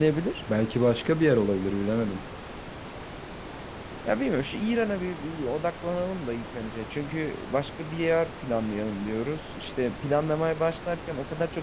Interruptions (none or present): none